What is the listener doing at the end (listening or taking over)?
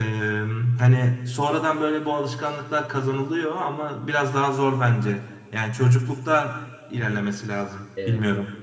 taking over